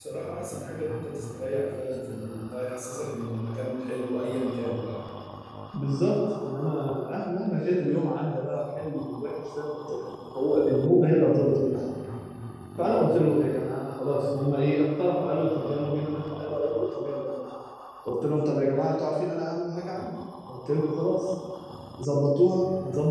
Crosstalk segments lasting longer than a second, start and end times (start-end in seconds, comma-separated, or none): none